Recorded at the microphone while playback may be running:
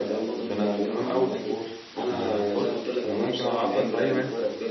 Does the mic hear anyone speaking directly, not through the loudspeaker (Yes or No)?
Yes